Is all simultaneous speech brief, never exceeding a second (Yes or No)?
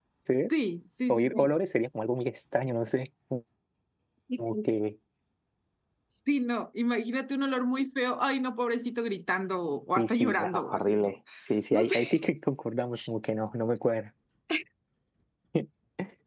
No